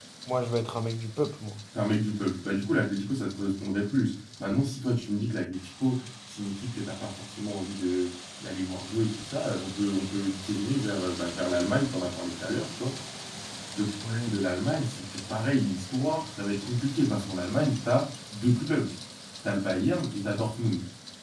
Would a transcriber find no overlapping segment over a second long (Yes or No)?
Yes